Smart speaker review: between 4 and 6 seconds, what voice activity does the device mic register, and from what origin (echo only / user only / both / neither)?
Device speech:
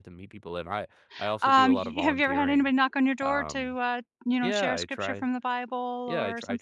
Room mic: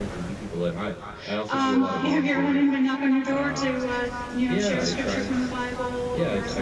echo only